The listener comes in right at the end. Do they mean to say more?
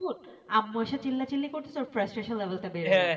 Yes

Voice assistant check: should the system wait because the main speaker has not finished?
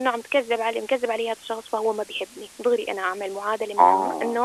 Yes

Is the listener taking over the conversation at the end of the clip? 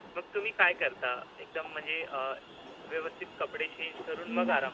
Yes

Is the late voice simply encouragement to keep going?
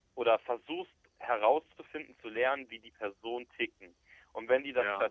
Yes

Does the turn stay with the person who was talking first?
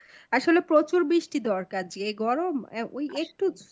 Yes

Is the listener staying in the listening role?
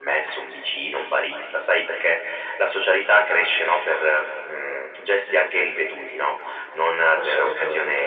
Yes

